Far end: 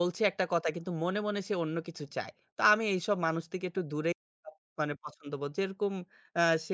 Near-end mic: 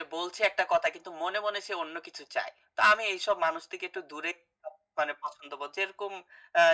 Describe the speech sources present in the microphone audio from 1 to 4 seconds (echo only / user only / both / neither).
echo only